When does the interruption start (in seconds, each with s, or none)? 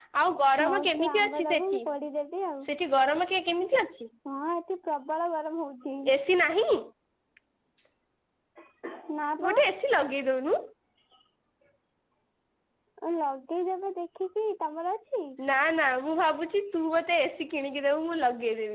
0.6 s